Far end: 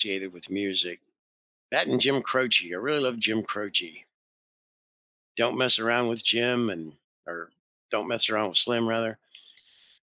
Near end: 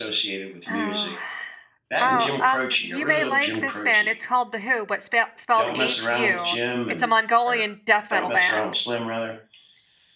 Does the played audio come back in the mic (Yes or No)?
Yes